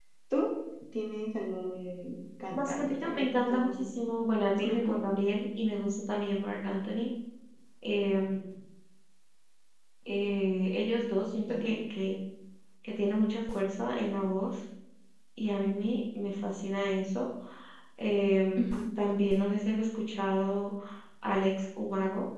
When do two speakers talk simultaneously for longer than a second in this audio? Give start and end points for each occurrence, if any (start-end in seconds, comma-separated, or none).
2.5-3.9